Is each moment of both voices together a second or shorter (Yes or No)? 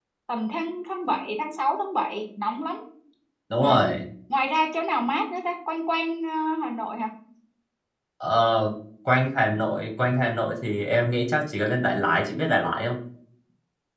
Yes